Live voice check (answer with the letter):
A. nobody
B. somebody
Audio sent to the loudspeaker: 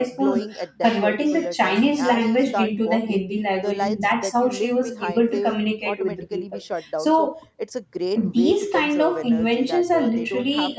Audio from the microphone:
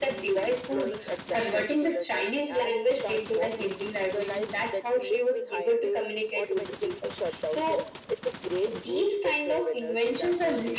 A